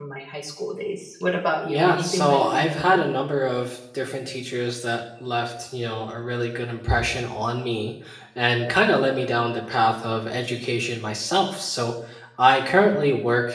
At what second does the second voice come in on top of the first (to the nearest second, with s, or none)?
2 s